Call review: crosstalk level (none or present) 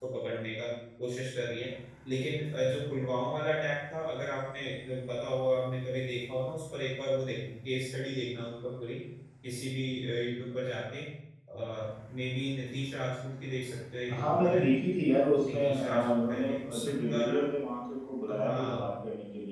present